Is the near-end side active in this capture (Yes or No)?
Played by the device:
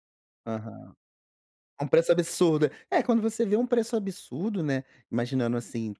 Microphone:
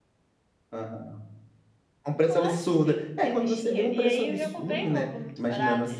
Yes